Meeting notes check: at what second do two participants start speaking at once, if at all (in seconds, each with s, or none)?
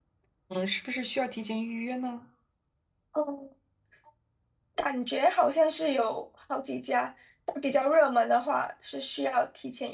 none